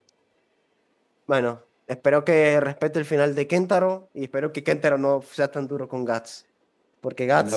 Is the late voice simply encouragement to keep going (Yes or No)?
No